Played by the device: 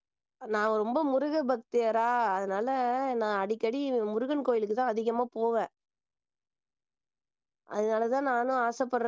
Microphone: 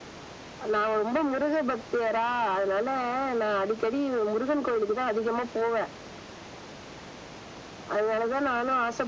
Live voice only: none

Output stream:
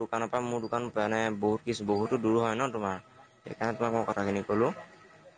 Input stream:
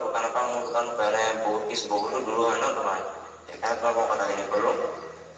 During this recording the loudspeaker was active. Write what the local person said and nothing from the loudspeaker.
none

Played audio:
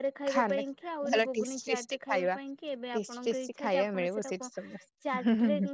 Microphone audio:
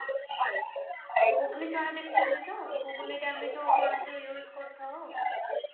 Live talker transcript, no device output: ଗୁଗୁନି ଚଣା ଦେଖିଚନ୍ତି ତ ଗୁଗୁନିରେ ଆମେ ଯୋଉ ଚଣା ଯୋଉ ୟୁଜ କରିଥାଉ।

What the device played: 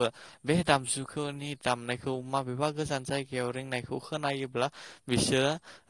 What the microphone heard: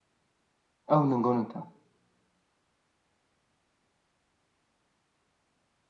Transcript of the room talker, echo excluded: औ नंगौ नोंथां

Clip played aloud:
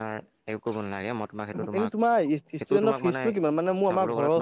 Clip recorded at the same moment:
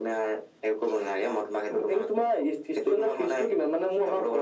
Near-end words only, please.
none

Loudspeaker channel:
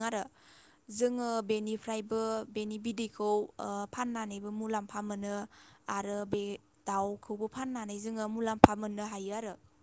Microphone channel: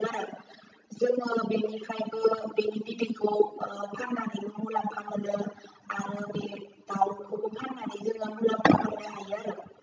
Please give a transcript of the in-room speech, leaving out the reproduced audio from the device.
none

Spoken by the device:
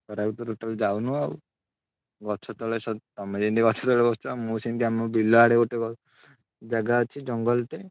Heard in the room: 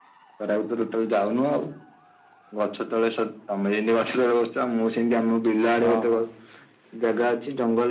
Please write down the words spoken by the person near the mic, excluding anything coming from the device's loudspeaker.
ହଁ ହଁ।

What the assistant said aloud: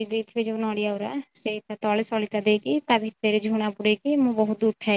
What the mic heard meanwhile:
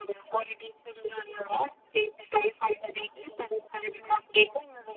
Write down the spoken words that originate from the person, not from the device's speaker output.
none

